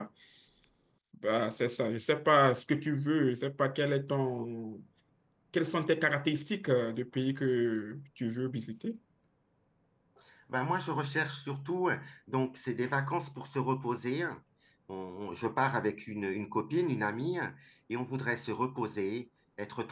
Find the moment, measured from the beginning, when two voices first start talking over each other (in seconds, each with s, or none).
none